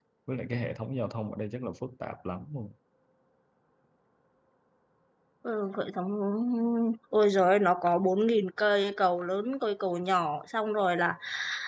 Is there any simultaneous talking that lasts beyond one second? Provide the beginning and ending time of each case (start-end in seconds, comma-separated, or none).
none